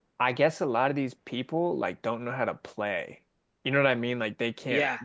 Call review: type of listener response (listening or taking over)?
listening